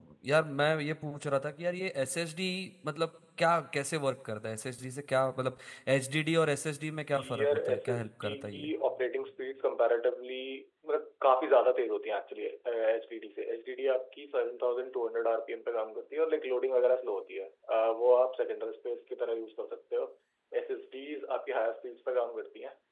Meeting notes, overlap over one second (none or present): present